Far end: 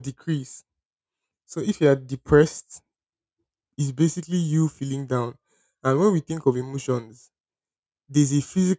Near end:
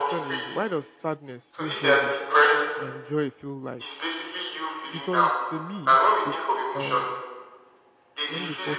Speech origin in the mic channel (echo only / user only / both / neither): both